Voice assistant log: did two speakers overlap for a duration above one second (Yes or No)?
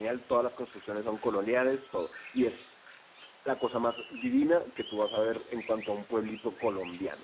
No